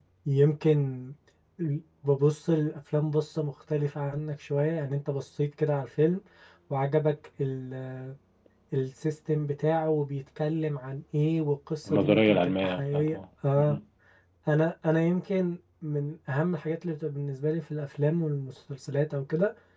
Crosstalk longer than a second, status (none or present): present